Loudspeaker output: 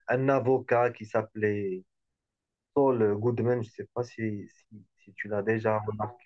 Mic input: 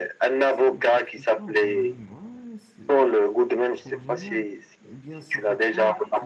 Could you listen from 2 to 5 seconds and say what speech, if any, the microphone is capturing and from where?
both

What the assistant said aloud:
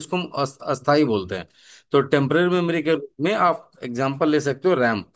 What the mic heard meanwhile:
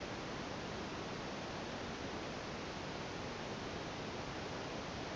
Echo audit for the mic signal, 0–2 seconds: neither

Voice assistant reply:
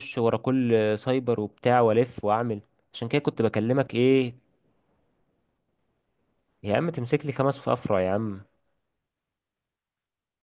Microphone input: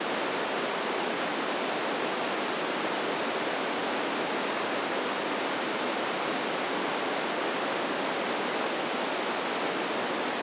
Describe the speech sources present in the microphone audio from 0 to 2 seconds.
neither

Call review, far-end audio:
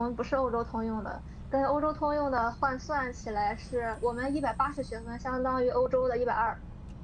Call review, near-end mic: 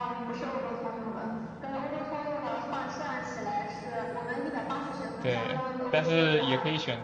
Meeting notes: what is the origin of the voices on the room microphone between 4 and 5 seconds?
echo only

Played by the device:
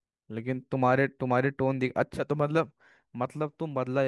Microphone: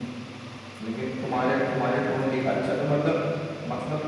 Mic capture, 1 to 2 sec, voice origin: echo only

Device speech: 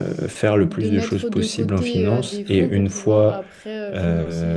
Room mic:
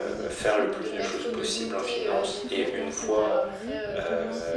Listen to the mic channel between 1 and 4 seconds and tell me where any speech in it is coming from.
both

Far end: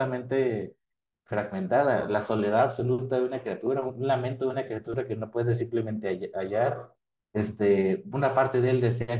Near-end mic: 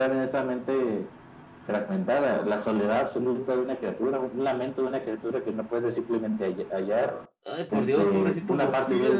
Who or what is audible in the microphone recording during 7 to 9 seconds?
both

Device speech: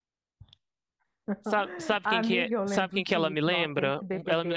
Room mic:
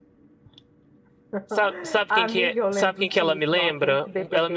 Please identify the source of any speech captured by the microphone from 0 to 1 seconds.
neither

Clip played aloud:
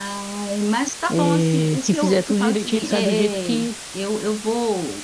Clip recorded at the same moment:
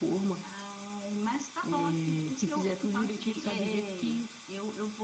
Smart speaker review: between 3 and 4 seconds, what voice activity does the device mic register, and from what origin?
echo only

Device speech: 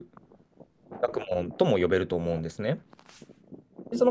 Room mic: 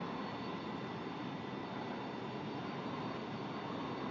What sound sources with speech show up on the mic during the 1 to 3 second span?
neither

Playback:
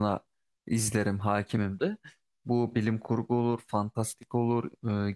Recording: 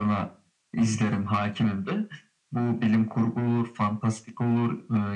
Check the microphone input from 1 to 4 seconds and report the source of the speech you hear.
echo only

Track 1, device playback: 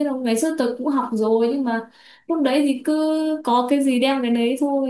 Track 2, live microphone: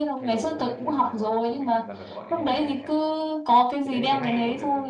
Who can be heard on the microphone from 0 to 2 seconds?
both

